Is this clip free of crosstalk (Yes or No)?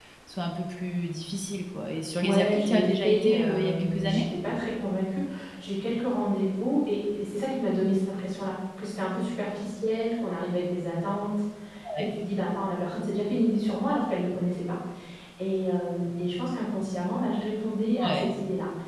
No